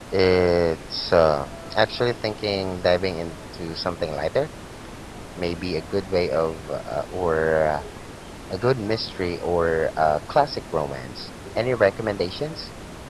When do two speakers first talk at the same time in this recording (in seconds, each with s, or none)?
none